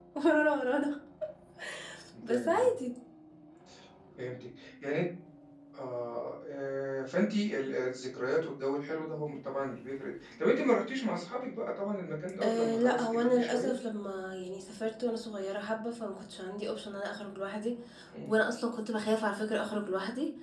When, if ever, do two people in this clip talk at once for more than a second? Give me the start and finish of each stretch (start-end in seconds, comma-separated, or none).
12.4-13.7